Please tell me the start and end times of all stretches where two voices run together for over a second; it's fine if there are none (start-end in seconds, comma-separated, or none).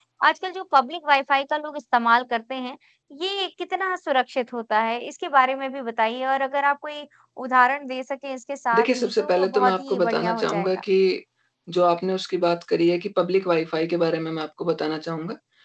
8.8-10.7